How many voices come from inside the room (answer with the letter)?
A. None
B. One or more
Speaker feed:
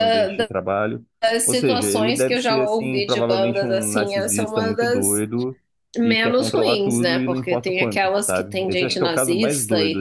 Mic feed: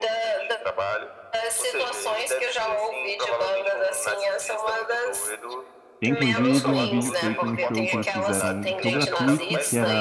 B